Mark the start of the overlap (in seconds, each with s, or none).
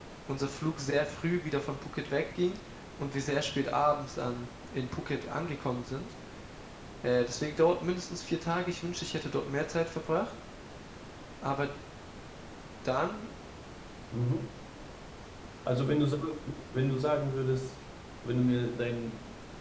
none